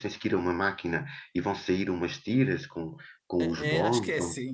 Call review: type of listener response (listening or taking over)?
taking over